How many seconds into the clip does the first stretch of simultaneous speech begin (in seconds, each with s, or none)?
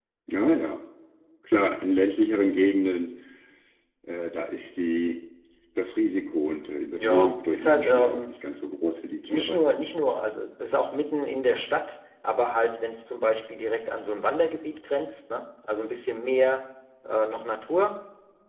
7.0 s